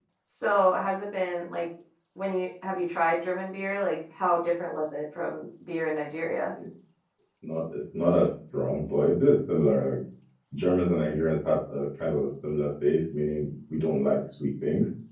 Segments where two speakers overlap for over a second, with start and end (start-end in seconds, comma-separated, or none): none